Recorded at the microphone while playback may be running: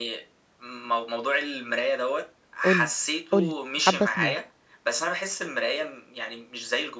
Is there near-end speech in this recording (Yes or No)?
Yes